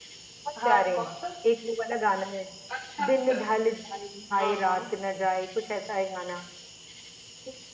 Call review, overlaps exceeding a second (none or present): none